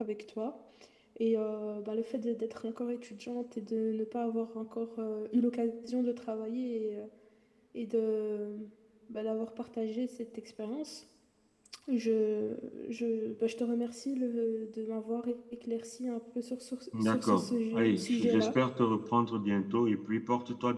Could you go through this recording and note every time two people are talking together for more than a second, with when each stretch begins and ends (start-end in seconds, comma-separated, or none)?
17.0-18.5